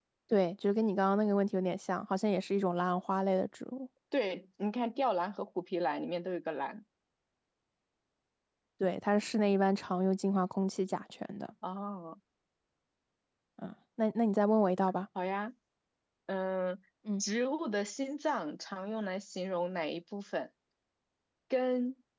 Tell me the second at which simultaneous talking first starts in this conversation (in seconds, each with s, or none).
none